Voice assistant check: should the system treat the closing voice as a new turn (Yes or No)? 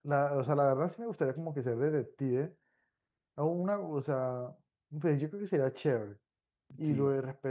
No